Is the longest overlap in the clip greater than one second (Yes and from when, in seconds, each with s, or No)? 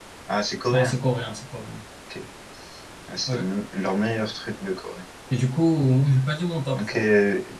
No